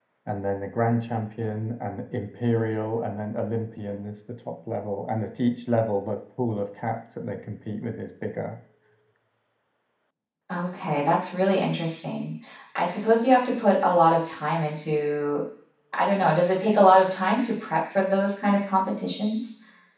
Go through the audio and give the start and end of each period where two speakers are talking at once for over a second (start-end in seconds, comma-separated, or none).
none